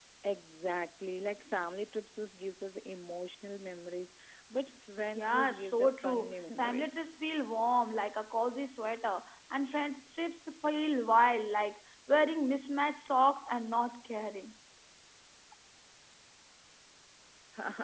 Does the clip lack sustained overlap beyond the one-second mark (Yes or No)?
No